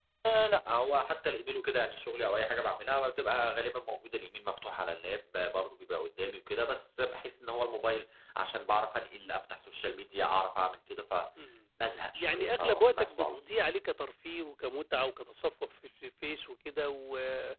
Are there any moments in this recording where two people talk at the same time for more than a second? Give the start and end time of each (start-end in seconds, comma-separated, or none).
12.2-13.4